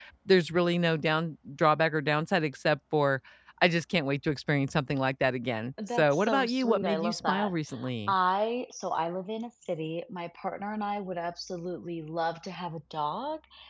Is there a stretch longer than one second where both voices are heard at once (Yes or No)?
Yes